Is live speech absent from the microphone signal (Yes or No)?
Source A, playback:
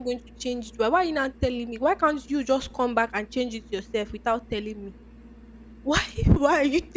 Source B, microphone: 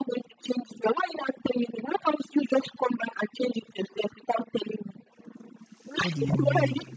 No